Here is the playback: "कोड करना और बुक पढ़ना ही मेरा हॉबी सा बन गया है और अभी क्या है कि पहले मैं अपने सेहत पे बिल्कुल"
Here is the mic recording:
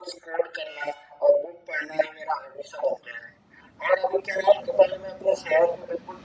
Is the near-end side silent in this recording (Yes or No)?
Yes